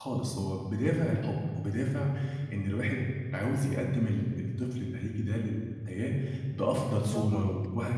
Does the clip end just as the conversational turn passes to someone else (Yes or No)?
No